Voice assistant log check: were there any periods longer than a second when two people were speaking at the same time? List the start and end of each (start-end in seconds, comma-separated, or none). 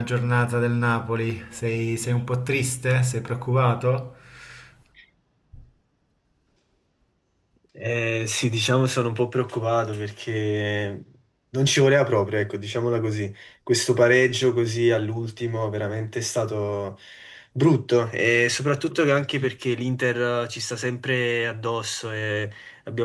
none